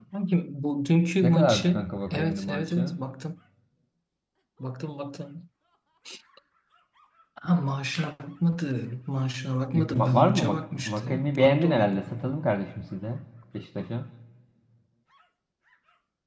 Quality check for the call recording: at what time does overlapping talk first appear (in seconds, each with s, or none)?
1.2 s